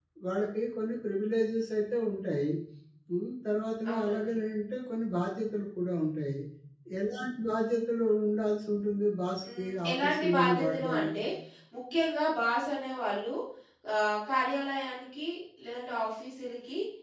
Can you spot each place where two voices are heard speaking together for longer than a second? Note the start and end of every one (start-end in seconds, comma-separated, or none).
9.6-11.1